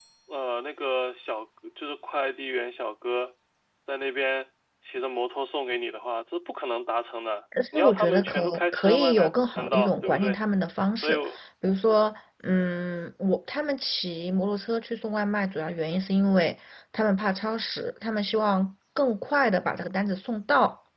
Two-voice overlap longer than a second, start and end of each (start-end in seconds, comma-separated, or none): 7.7-10.4